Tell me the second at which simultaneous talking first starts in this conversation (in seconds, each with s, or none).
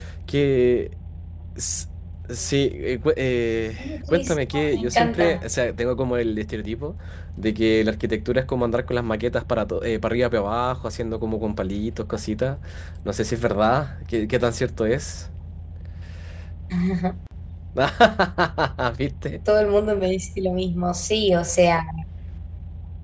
4.1 s